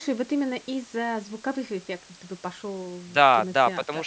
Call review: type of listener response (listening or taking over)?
taking over